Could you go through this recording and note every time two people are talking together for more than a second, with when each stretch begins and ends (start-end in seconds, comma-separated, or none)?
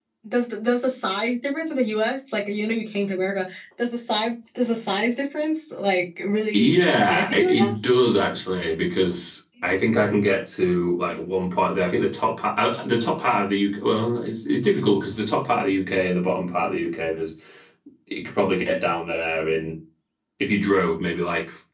6.5-7.9